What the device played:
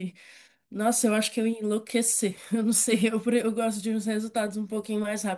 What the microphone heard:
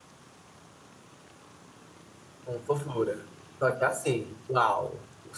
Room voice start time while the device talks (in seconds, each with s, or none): 2.4 s